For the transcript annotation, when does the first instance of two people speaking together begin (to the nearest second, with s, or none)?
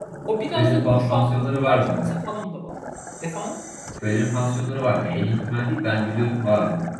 1 s